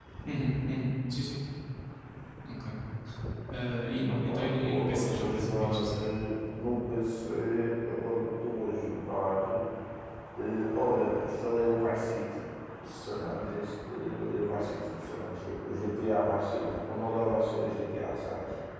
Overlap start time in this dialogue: 4 s

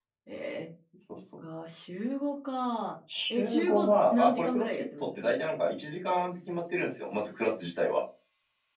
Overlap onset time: 3 s

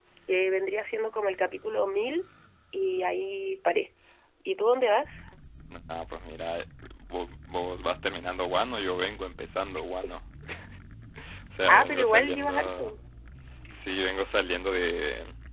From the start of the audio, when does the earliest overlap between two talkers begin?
12 s

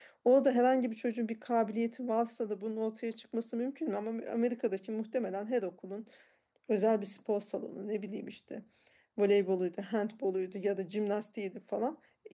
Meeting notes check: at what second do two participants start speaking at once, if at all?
none

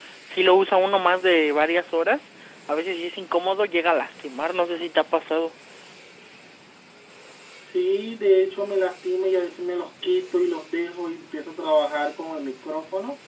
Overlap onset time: none

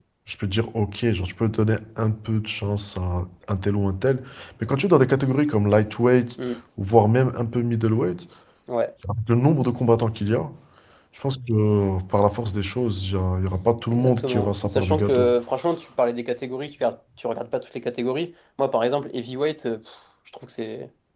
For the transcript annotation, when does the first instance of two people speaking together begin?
14 s

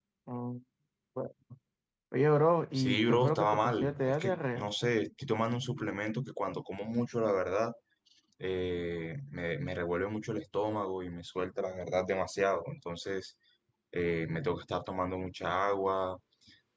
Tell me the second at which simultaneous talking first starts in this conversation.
3 s

